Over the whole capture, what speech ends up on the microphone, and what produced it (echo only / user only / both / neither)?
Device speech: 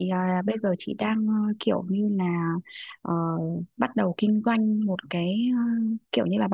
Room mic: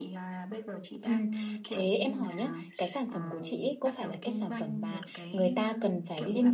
both